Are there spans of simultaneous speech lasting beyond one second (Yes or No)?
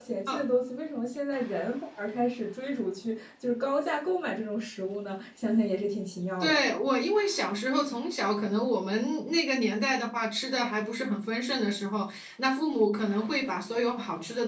No